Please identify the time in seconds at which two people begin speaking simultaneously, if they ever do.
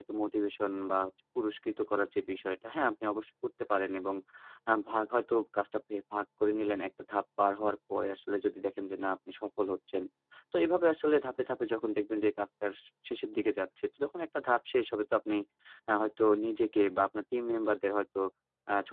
none

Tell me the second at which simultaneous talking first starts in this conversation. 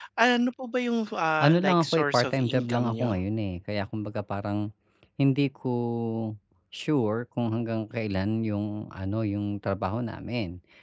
1.4 s

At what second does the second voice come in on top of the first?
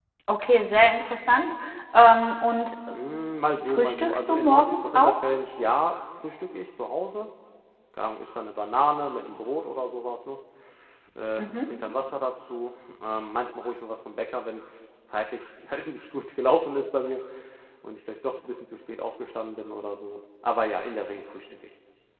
3.6 s

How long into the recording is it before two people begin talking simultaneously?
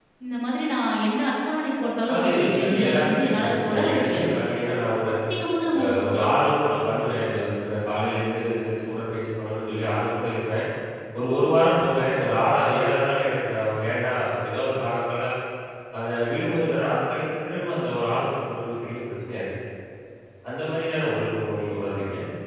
2.1 s

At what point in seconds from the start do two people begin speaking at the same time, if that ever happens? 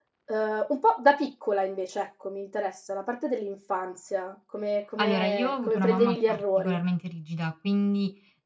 5.0 s

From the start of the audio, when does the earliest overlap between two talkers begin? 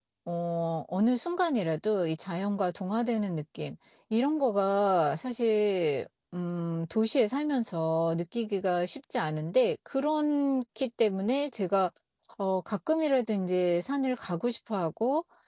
none

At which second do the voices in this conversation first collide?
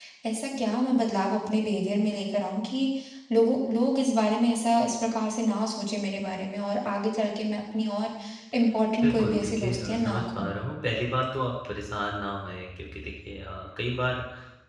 9.0 s

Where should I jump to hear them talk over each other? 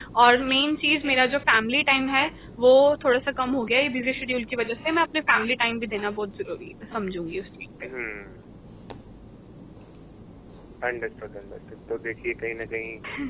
none

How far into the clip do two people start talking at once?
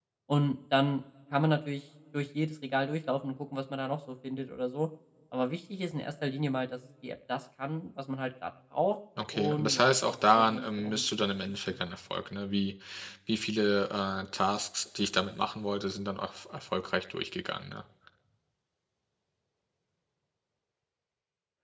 9.2 s

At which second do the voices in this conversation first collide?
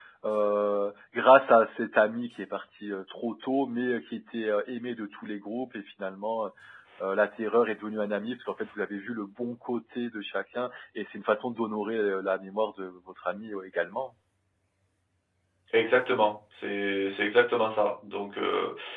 none

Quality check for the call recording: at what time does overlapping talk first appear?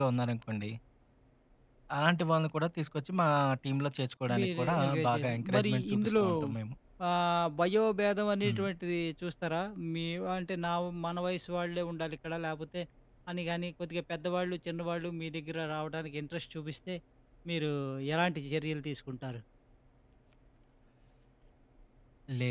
4.4 s

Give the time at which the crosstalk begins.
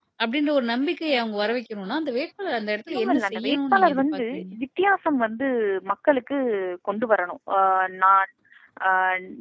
2.9 s

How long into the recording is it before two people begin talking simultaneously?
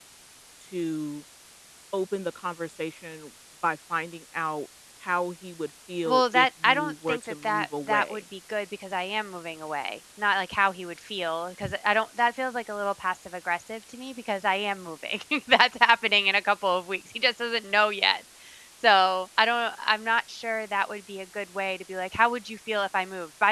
6.0 s

